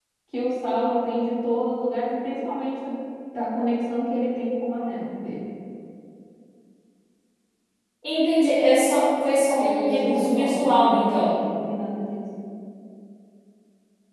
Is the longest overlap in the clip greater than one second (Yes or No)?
Yes